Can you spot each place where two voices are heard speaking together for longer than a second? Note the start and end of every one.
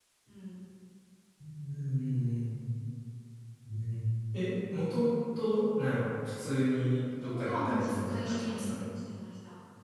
7.2-8.7

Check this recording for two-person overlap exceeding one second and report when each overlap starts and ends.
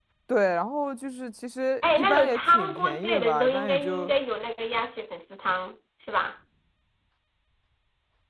1.8-4.1

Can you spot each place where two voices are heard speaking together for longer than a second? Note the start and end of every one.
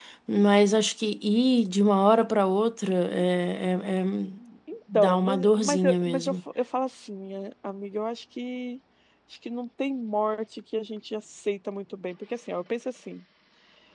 4.9-6.3

